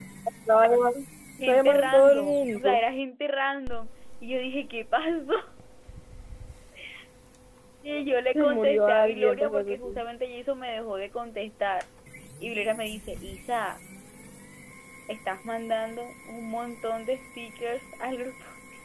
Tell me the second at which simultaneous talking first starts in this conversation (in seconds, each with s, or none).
1.4 s